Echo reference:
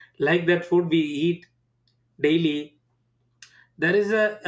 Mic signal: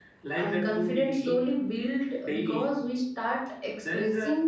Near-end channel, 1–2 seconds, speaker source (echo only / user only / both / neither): both